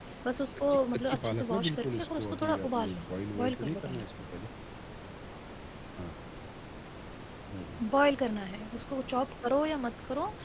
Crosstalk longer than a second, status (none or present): present